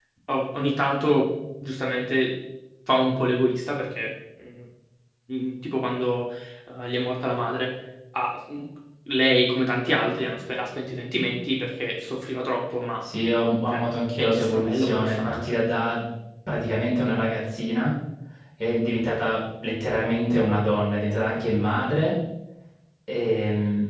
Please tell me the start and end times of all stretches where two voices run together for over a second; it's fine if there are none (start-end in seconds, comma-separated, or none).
14.2-15.6